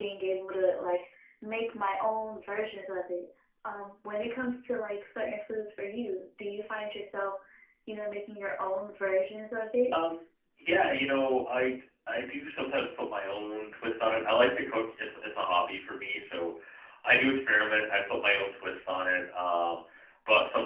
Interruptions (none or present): none